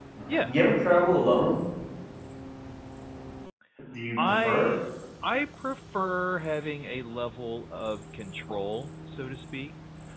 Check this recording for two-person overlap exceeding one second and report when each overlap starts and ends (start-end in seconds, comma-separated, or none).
none